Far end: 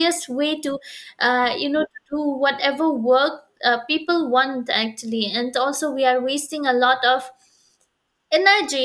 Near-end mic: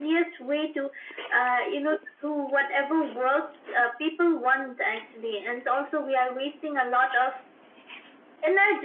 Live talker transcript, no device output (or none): none